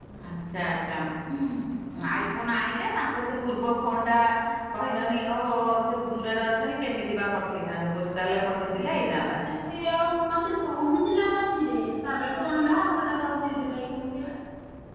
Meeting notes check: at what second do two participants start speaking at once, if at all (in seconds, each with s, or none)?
none